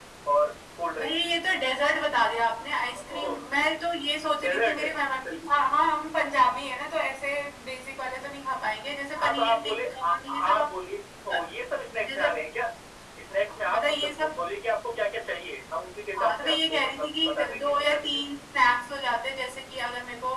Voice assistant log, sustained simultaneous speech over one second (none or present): present